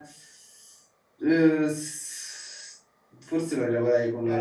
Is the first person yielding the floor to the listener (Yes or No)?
Yes